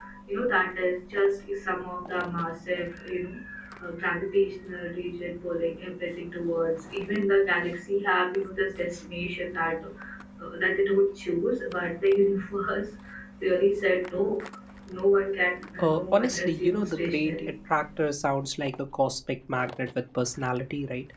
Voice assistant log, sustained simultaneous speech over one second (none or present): present